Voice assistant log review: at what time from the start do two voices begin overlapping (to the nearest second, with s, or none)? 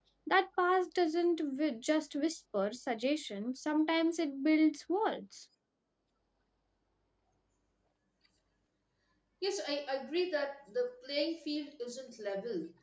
none